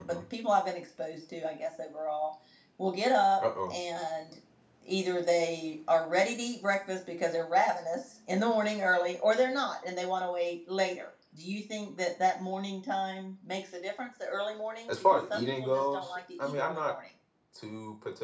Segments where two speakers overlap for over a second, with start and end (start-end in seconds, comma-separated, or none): 14.9-16.9